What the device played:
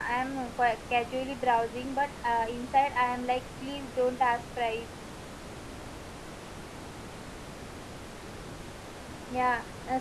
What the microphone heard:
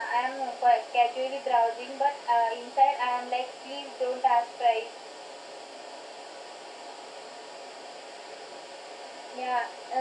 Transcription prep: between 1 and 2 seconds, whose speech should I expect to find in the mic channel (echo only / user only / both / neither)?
echo only